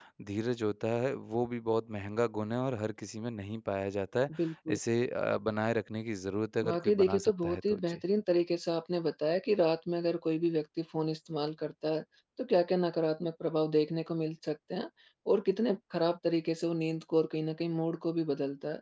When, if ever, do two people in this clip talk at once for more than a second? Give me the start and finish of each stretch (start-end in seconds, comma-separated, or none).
6.6-8.0